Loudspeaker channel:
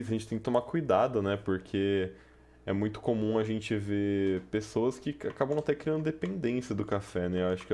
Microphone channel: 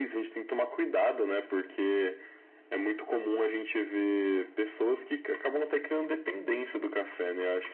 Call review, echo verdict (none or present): present